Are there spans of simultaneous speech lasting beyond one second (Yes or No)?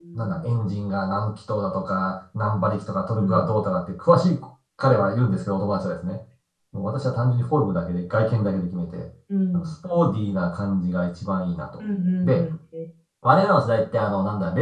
No